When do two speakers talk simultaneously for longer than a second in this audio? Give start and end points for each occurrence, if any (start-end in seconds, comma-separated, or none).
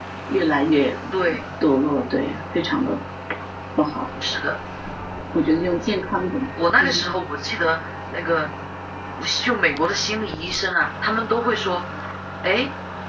none